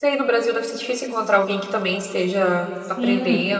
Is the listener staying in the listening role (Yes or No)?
No